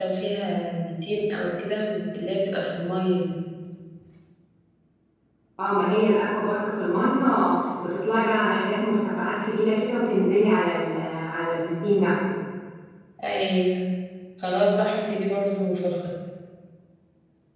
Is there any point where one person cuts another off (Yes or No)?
No